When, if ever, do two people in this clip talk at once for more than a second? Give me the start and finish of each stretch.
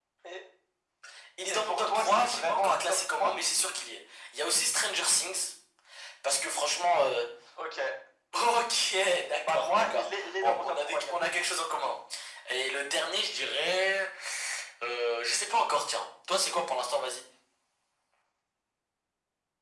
1.5-3.3, 9.3-11.3

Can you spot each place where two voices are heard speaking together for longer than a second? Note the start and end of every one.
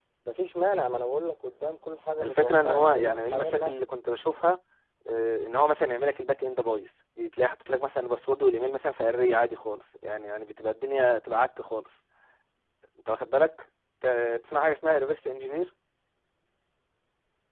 2.2-3.7

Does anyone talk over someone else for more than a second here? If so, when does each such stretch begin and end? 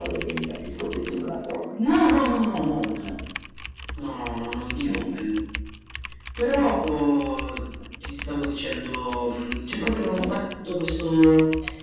none

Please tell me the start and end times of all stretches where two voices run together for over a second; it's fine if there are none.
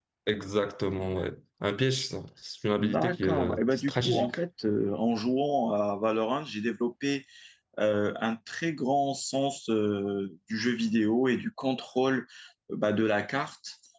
2.8-4.4

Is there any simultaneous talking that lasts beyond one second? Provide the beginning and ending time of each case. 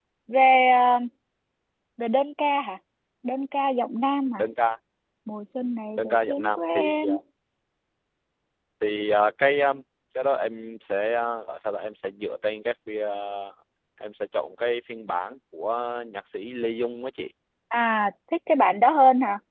6.0-7.2

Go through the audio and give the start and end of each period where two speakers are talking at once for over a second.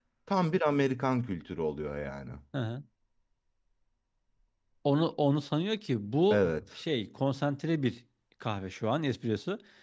none

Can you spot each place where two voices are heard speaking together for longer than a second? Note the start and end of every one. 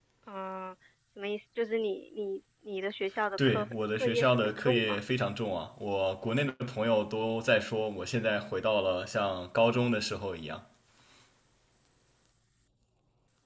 3.4-5.0

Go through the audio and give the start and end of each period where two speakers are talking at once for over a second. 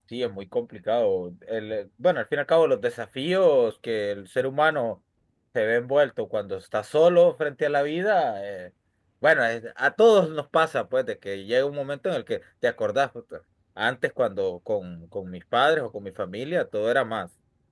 none

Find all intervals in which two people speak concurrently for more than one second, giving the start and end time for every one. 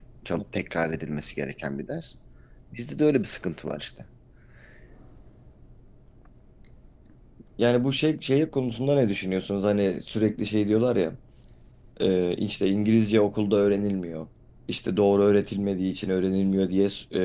none

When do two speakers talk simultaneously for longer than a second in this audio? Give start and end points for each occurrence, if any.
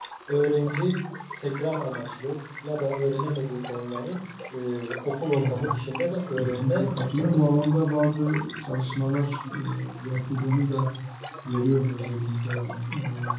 6.4-7.6

